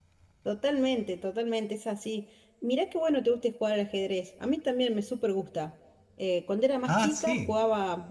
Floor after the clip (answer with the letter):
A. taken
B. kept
B